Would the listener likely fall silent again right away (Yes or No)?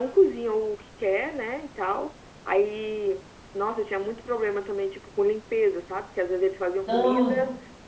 Yes